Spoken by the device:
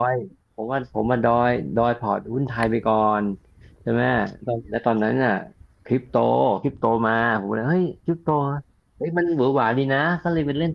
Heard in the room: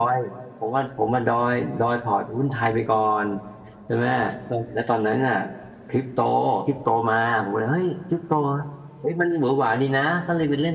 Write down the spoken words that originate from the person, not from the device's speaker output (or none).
none